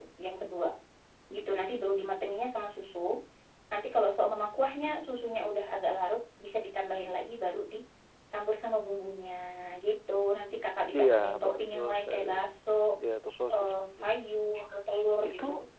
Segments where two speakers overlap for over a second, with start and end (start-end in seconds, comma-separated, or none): 10.9-12.4